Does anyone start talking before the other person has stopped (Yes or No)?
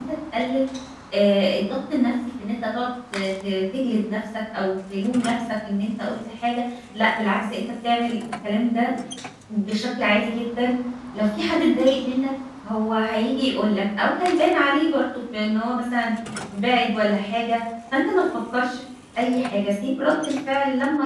No